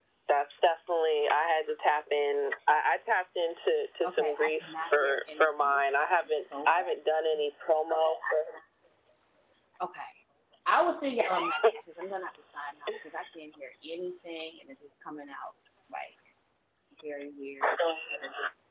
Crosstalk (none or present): present